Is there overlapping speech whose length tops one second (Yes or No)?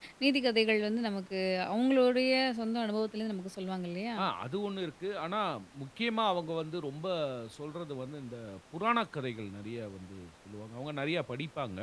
No